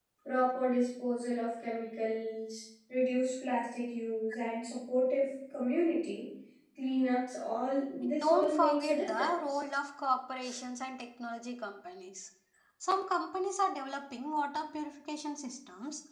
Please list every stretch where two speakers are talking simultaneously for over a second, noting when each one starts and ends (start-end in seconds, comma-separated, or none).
8.0-9.6